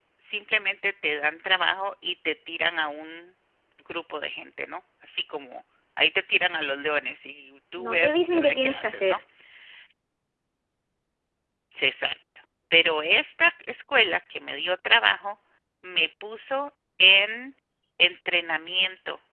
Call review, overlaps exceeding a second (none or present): present